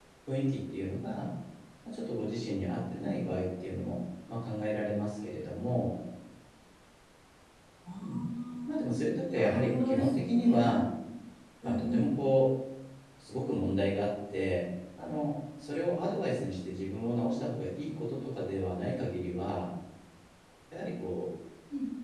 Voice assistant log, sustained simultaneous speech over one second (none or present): present